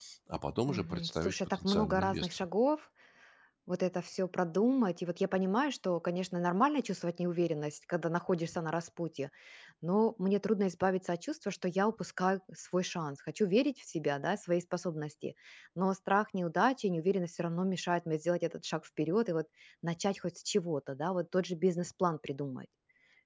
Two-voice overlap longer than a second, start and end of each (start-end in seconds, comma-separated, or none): 0.7-2.5